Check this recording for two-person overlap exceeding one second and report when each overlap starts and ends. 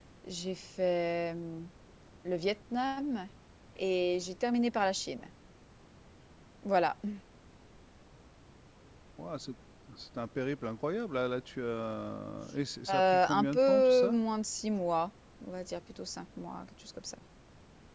12.9-14.2

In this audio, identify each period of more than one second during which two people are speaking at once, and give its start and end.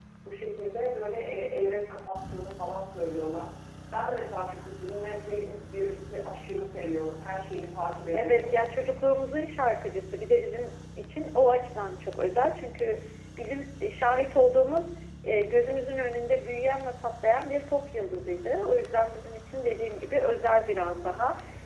none

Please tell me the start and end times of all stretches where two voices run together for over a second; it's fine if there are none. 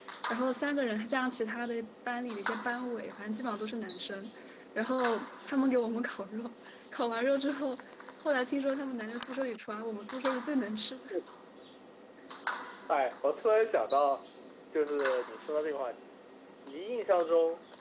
none

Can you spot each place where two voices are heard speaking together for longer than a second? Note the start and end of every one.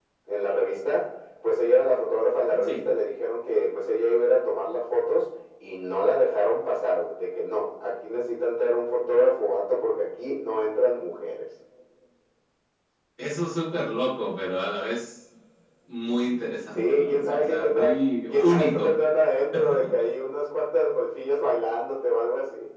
16.8-19.0

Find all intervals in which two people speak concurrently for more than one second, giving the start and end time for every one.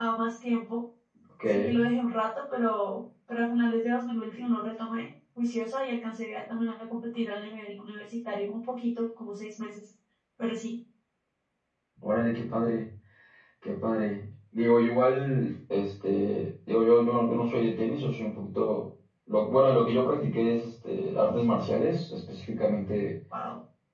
none

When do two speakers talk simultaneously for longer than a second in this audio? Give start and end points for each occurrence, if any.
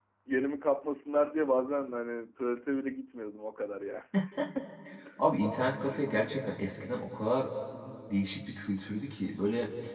none

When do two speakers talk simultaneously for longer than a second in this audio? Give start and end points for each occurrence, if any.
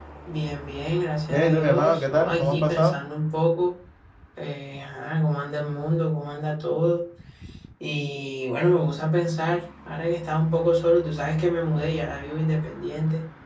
1.3-3.0

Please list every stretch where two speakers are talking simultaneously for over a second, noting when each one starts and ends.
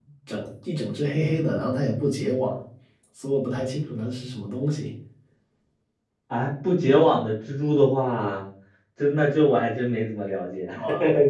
none

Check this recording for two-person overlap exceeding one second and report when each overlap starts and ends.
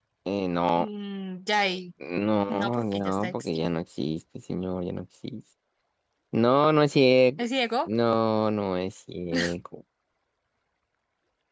2.5-3.7

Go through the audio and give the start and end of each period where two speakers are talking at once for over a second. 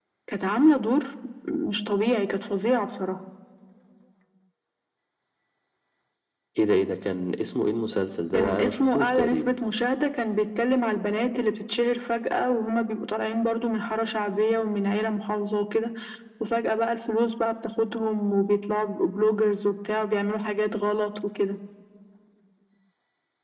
8.3-9.5

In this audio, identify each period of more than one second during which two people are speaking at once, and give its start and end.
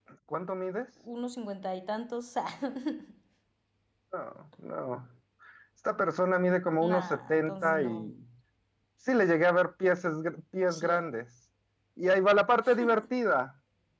6.8-8.1

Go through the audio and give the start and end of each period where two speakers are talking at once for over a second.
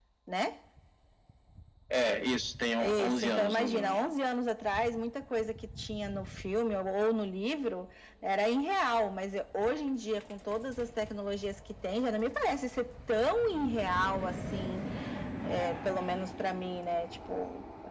2.8-4.0

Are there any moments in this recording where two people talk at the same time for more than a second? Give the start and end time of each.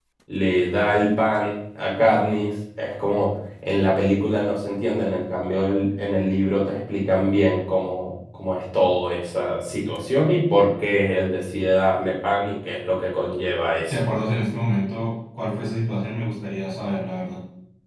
none

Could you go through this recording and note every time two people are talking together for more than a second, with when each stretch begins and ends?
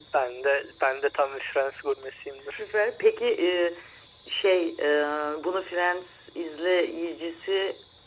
none

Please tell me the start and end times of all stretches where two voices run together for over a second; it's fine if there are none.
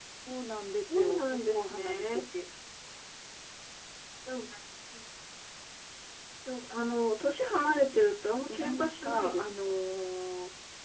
1.0-2.2, 8.5-9.8

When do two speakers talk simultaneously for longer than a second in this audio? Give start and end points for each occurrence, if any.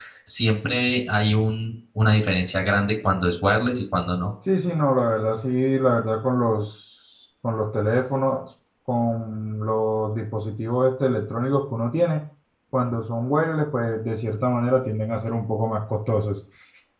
none

